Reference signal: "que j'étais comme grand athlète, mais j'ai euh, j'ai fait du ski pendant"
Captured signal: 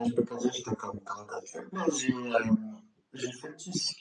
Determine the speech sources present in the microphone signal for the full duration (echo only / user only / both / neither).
echo only